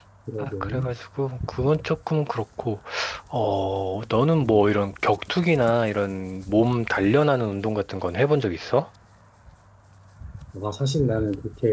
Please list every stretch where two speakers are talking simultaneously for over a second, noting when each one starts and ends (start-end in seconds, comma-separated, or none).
none